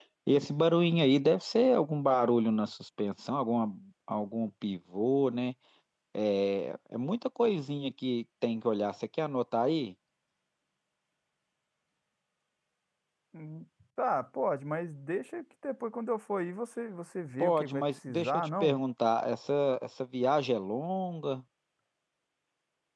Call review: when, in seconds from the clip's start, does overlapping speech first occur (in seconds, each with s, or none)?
17.4 s